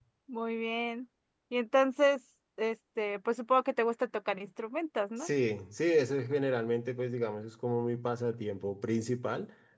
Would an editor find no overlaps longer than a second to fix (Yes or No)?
Yes